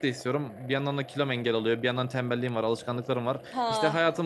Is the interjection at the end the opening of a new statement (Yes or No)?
No